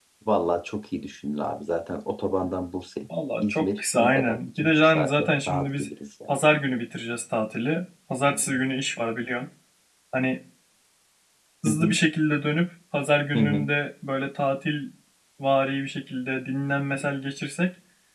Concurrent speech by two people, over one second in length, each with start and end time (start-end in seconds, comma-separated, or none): 3.4-5.9